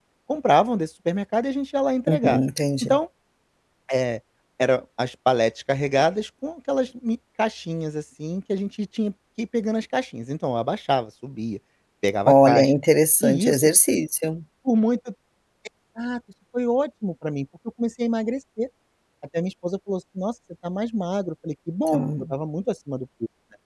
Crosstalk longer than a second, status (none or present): none